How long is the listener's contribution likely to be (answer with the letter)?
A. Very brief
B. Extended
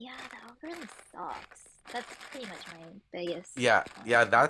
B